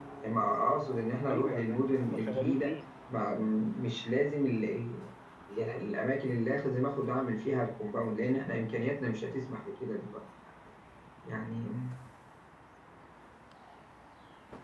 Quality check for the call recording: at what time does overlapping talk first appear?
1.3 s

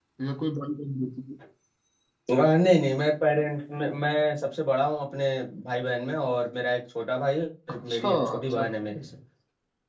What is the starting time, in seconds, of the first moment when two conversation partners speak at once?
7.7 s

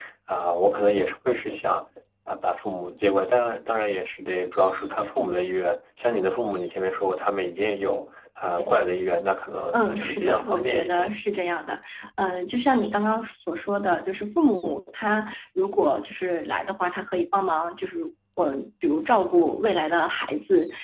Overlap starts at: 9.7 s

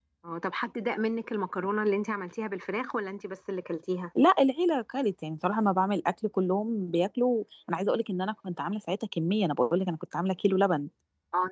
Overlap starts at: none

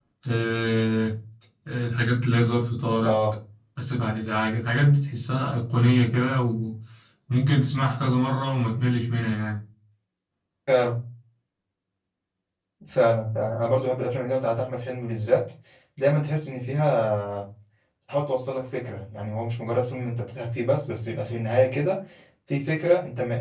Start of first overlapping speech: none

